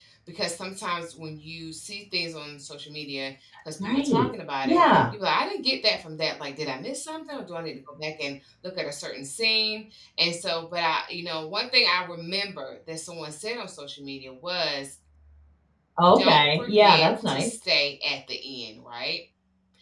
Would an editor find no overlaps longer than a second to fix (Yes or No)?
No